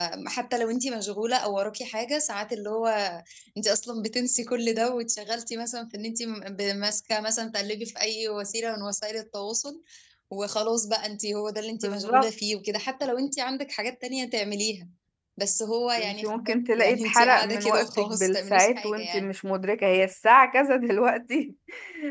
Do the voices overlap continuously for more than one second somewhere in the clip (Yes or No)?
Yes